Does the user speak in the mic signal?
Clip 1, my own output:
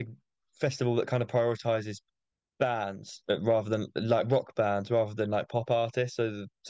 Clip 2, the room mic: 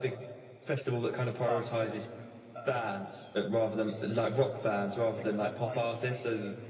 Yes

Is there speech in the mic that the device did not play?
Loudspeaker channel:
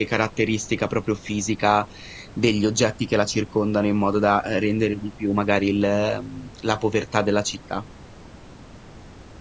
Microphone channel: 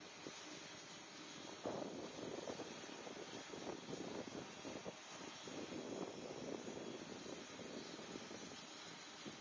No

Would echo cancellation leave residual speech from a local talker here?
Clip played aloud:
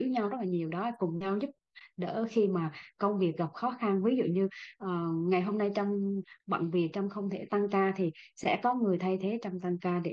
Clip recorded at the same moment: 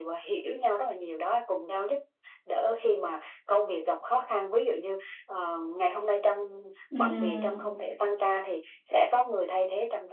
Yes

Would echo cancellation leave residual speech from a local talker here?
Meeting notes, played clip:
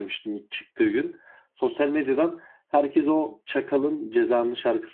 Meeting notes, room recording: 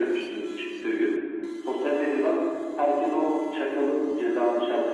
No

